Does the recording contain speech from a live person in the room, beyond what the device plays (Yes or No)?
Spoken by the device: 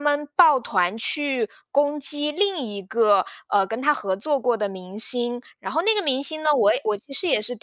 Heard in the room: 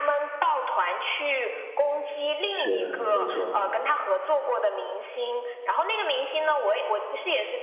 Yes